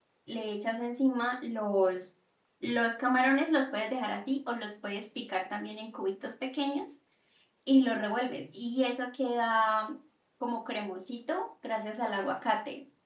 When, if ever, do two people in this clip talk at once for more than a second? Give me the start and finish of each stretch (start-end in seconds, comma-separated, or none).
none